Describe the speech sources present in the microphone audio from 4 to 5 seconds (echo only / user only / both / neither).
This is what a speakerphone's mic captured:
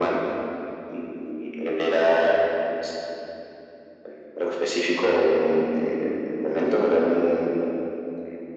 echo only